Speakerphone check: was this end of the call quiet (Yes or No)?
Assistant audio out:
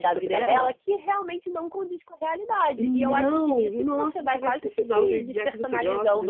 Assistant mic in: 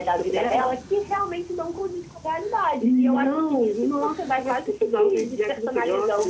Yes